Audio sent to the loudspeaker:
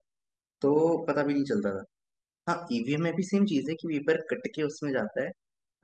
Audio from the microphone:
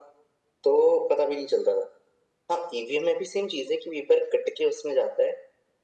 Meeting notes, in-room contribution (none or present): none